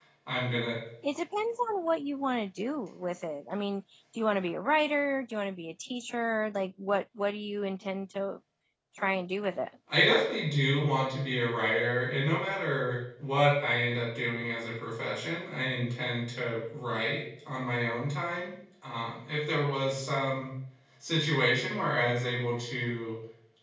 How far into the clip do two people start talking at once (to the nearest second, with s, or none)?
none